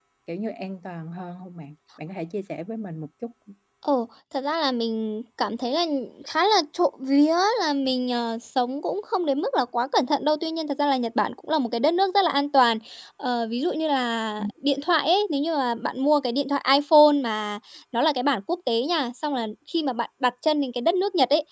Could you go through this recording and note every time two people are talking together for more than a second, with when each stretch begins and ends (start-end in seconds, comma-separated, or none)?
none